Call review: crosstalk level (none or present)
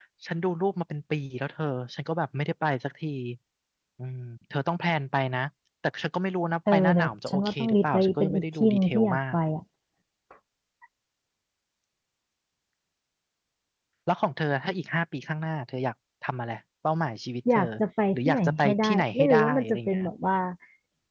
present